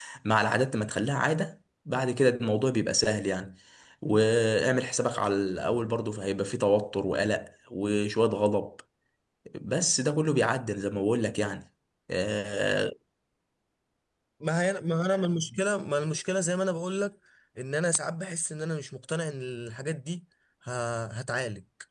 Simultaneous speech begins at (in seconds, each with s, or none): none